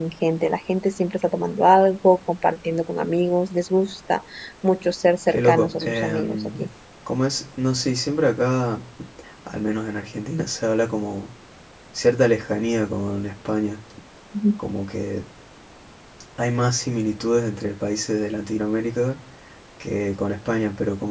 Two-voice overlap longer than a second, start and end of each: 5.3-6.7

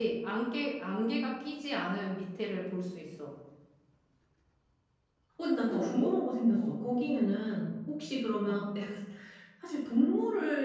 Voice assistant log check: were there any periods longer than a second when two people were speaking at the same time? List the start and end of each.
none

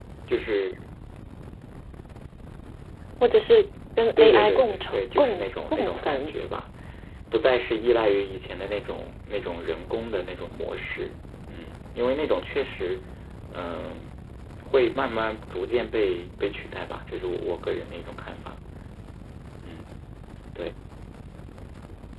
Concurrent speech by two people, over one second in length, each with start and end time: 4.2-6.3

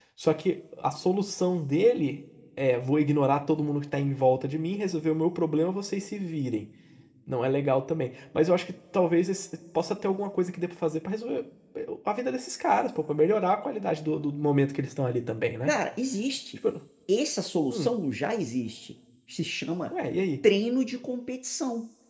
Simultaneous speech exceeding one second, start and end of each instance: none

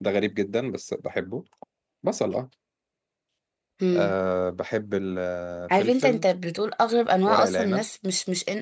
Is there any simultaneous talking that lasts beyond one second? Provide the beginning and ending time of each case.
none

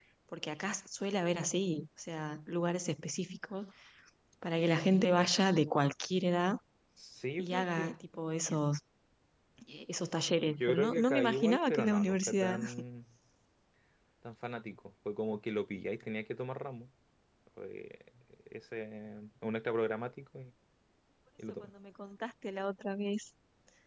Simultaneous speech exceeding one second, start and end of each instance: 10.6-12.6

